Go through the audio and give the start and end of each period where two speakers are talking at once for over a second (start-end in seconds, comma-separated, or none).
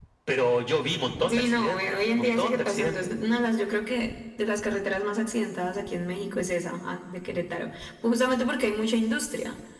1.3-3.0